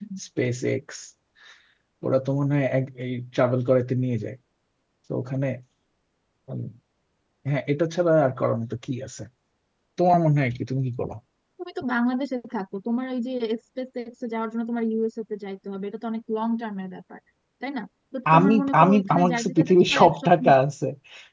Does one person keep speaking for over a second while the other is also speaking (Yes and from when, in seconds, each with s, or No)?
Yes, from 18.4 s